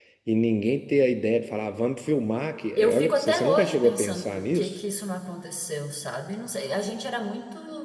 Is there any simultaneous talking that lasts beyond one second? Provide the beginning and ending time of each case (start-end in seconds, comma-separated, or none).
2.8-4.8